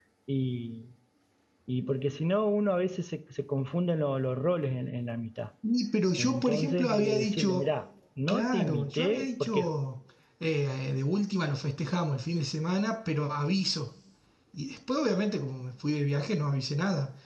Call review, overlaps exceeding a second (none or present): present